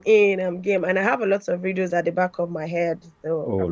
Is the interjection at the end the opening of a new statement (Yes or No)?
Yes